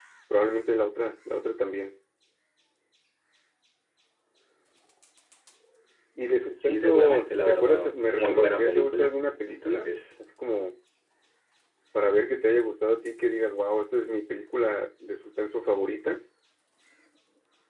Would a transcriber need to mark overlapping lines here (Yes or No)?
Yes